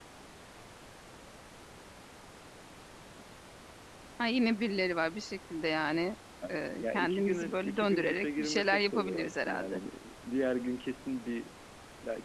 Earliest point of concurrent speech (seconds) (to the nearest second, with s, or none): 6 s